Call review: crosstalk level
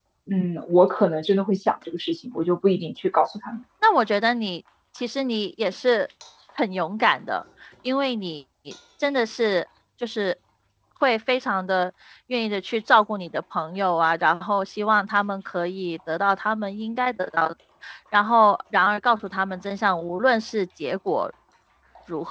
none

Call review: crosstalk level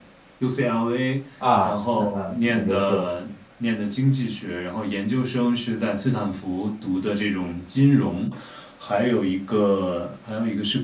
present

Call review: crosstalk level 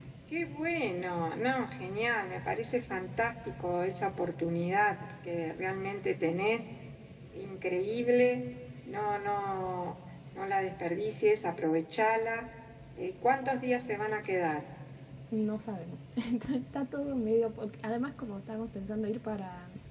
none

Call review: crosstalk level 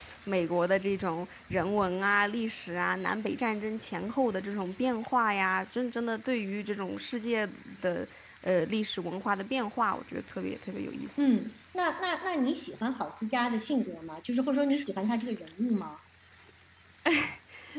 none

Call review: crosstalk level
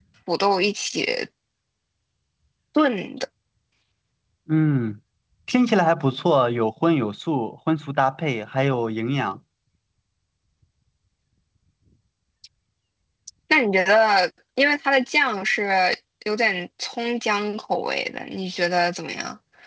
none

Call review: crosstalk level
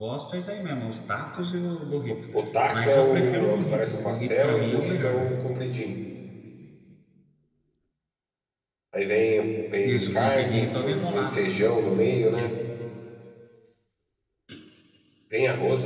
present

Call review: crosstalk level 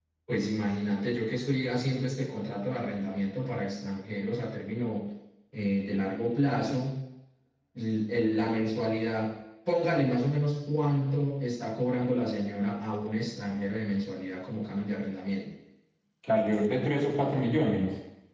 none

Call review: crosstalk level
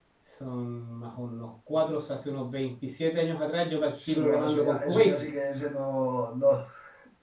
present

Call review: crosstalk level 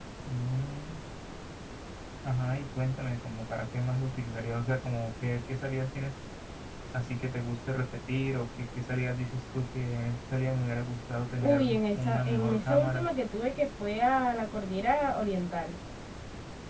present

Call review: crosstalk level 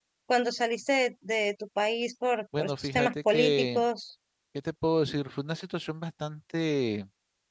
present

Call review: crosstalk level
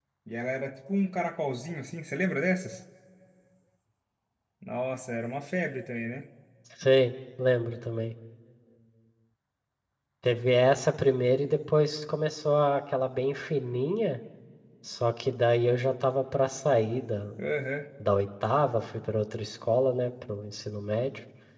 none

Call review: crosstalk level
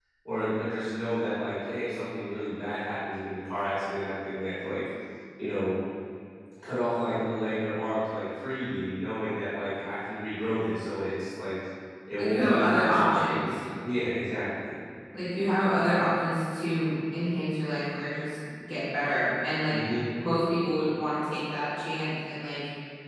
present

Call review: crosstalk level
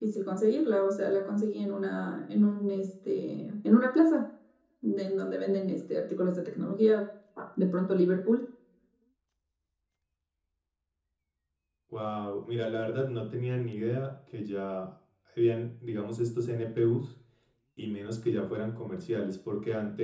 none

